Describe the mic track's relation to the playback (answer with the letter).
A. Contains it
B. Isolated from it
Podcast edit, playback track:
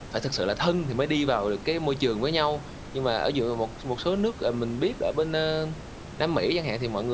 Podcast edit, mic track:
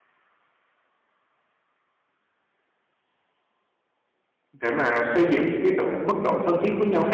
B